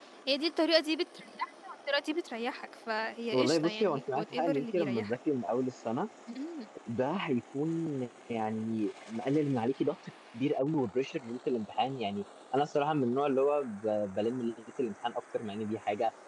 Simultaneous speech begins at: 3 s

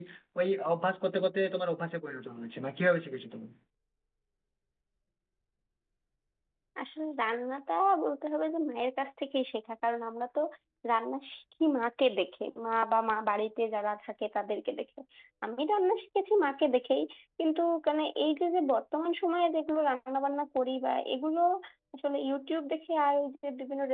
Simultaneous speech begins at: none

